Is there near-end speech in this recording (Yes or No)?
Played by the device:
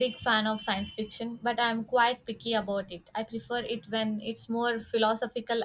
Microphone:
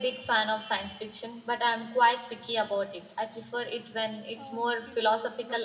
Yes